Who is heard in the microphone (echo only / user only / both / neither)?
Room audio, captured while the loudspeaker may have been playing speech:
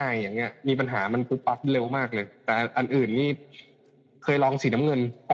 echo only